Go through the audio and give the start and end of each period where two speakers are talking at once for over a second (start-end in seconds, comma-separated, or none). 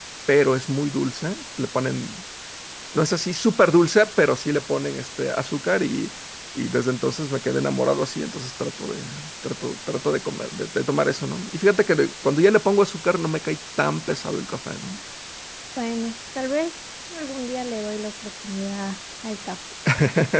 none